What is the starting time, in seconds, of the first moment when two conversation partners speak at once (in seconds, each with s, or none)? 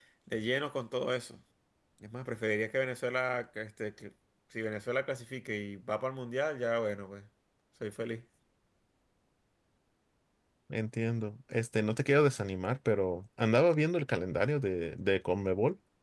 none